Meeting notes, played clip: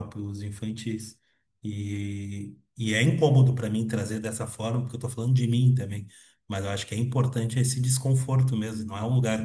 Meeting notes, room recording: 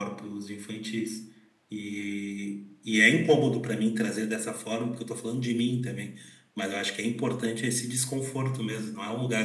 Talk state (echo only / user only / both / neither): echo only